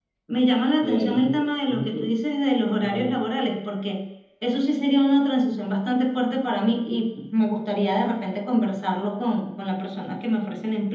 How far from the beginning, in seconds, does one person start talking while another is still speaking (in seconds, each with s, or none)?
0.8 s